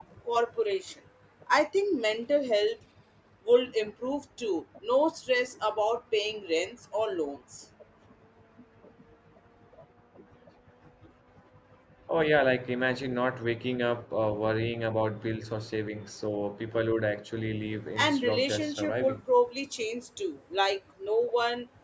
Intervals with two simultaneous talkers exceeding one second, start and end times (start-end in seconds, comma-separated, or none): 18.0-19.2